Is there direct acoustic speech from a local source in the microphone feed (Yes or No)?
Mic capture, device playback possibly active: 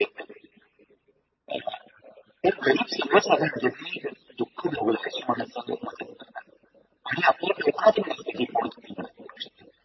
No